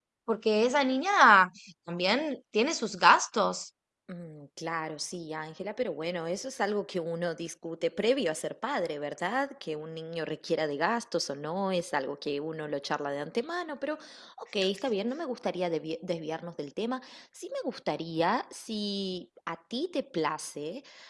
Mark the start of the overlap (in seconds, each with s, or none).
none